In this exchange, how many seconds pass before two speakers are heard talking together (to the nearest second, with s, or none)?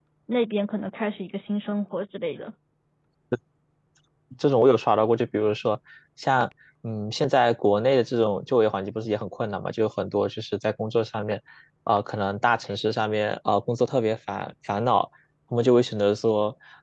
none